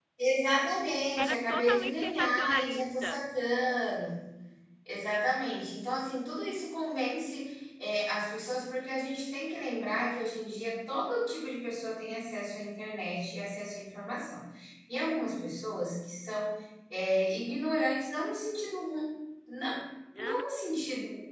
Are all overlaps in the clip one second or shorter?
No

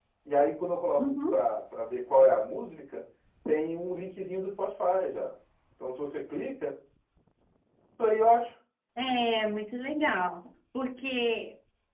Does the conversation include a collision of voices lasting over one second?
No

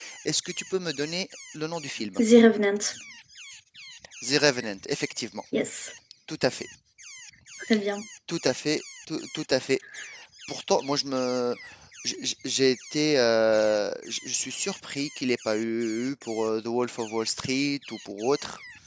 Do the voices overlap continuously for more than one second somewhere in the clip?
No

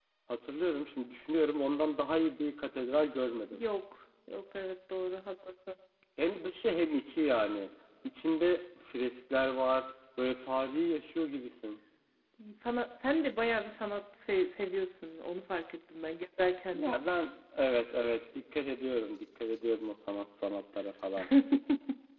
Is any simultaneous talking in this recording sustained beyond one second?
No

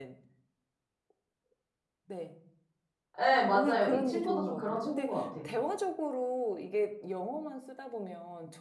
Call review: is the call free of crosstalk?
No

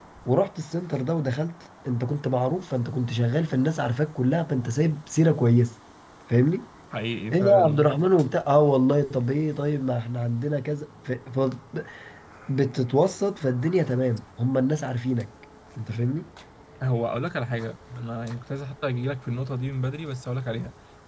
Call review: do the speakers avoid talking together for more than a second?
Yes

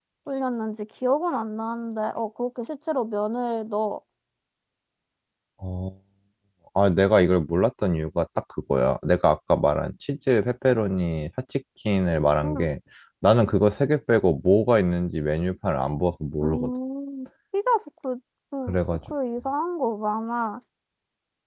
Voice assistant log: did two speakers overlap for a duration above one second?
No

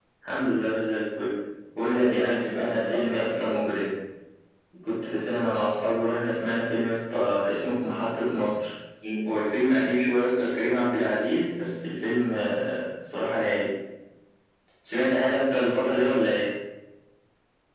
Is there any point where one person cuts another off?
Yes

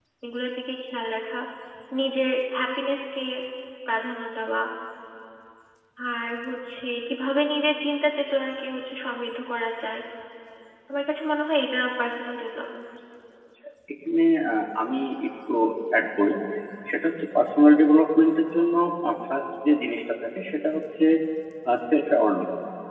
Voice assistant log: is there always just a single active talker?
Yes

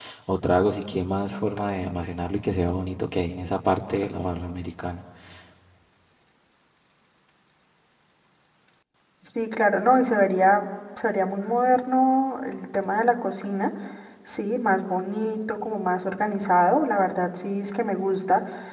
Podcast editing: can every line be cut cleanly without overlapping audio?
Yes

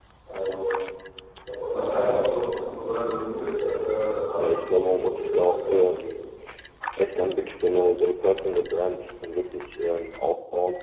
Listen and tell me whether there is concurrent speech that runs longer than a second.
Yes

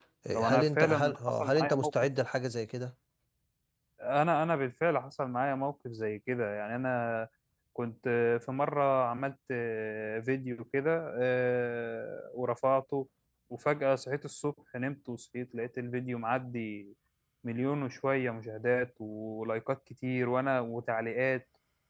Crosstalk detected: Yes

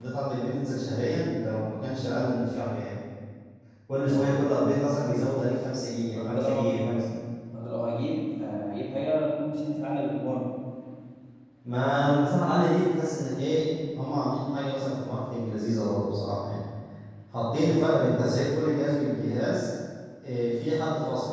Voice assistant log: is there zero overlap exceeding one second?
Yes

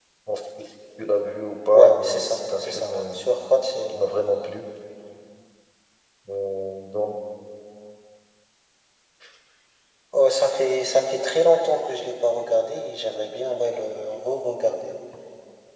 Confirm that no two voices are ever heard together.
No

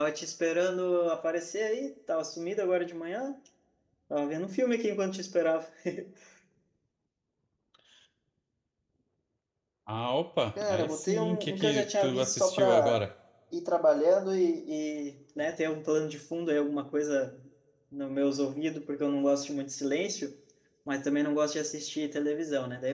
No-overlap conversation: No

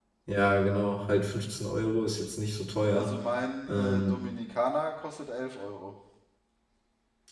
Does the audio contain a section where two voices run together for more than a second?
No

